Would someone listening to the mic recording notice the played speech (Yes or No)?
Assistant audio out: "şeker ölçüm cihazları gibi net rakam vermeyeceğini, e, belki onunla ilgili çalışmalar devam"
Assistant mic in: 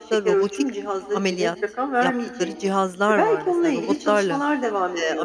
Yes